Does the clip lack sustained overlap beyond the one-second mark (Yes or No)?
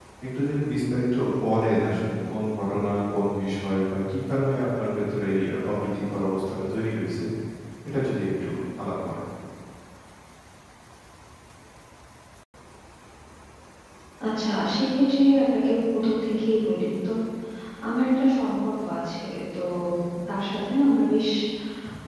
Yes